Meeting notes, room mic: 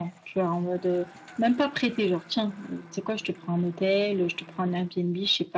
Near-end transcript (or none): none